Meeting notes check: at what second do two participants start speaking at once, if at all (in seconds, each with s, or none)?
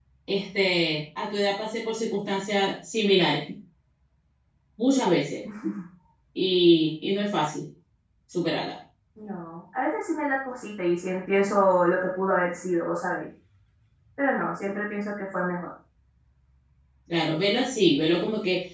none